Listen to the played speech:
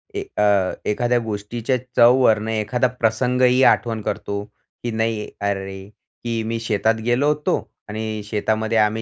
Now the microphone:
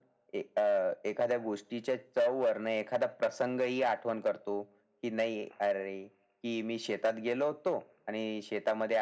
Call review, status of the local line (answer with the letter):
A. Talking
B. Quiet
B